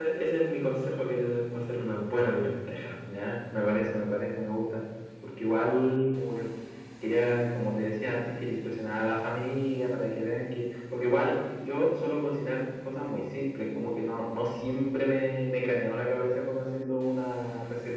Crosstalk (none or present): none